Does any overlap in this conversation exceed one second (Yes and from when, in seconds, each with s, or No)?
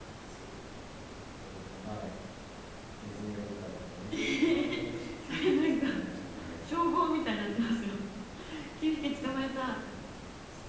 Yes, from 4.1 s